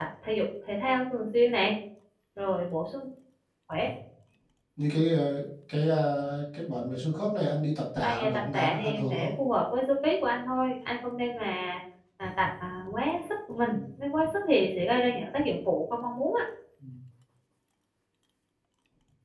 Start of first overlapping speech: 8 s

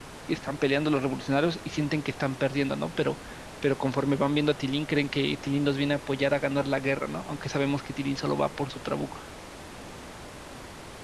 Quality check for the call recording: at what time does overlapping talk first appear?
none

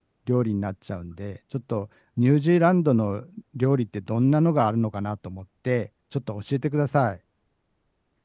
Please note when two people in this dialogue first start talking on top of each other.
none

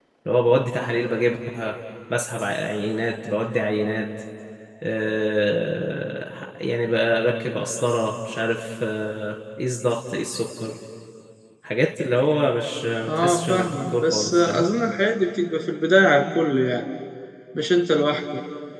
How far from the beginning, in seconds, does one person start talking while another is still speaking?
13 s

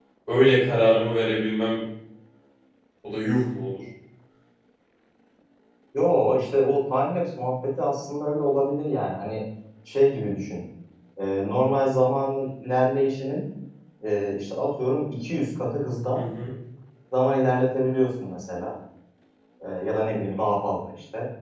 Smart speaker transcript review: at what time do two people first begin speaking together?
none

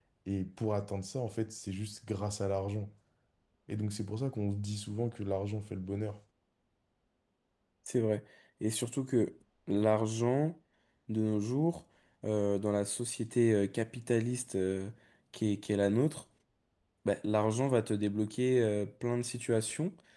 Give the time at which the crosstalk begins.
none

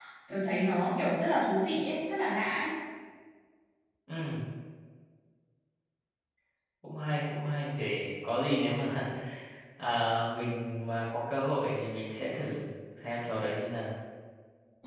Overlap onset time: none

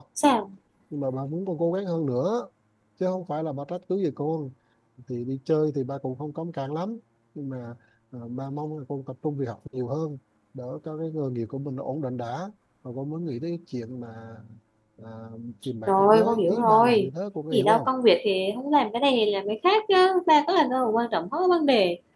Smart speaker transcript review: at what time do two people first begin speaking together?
16 s

